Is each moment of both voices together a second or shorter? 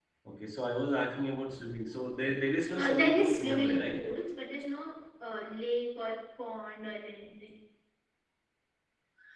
No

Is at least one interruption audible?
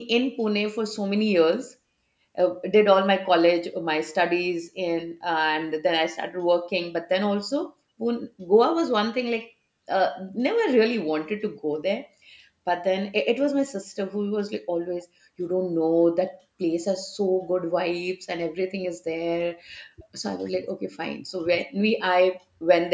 No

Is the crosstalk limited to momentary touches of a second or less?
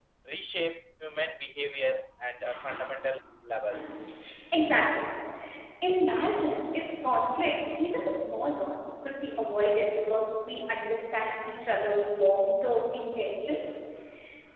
Yes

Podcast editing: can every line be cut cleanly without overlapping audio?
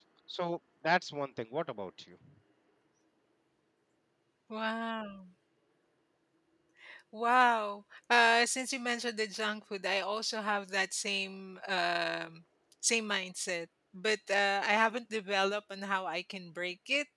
Yes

